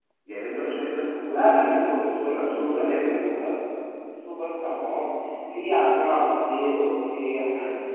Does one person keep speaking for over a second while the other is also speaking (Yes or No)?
Yes